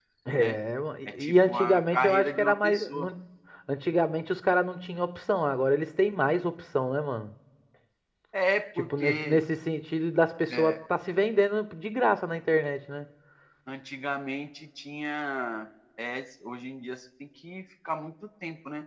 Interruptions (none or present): present